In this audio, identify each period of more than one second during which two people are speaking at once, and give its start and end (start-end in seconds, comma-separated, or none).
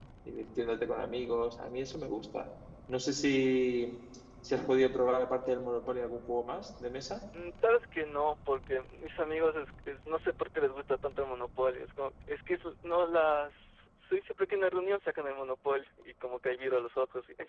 none